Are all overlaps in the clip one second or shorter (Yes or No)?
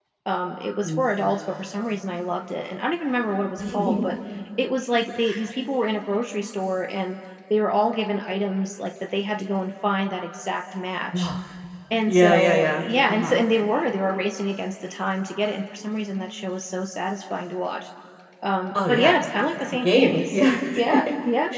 No